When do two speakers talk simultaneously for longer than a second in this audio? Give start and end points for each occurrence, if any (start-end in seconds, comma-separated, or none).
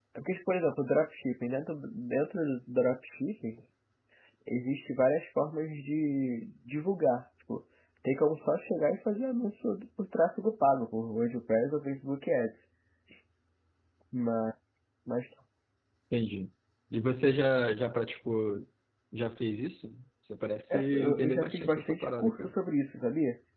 20.7-22.5